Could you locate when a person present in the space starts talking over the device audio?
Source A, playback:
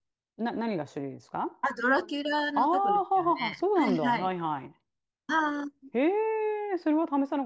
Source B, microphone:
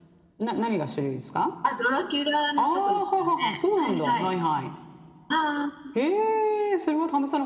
none

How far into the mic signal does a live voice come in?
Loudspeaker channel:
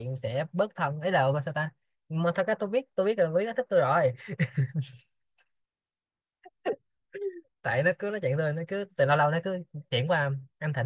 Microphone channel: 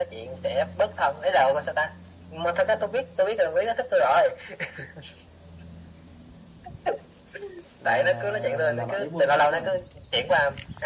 7.8 s

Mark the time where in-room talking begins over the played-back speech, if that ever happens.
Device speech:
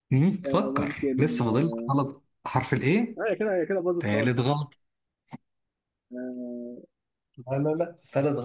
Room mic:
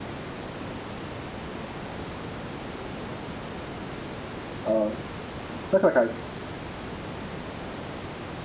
4.7 s

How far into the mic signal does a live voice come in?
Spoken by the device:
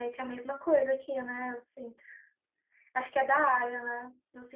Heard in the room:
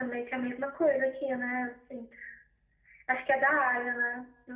none

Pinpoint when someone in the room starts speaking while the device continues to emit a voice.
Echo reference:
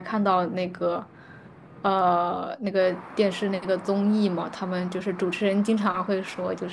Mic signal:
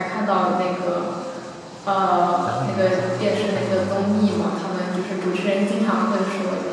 2.4 s

